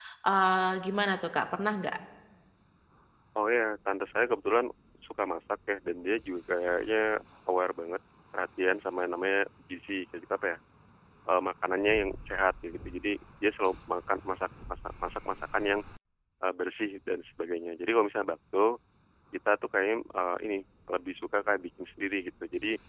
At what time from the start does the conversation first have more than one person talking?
none

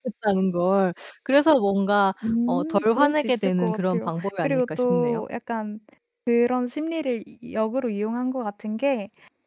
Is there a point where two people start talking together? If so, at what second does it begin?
2.2 s

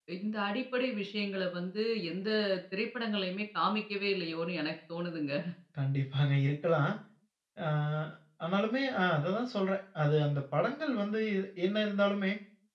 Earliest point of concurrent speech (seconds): none

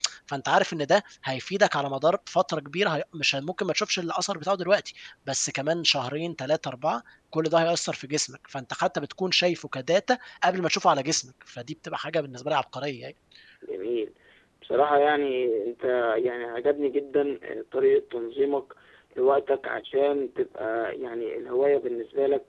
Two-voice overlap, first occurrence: none

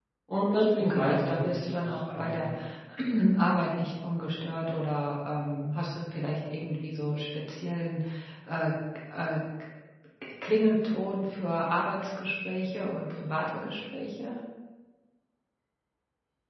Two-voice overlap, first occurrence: 0.8 s

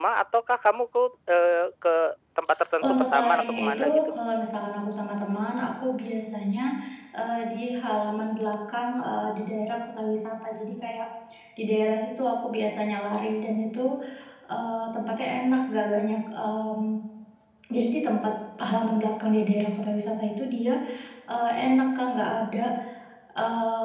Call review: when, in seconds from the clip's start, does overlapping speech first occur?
2.8 s

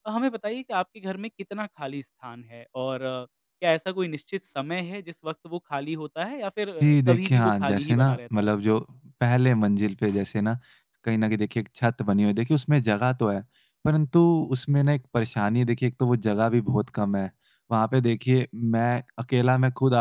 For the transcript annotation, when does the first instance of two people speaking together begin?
6.8 s

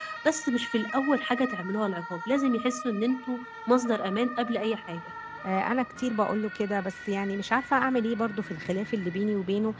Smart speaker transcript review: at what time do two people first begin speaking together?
none

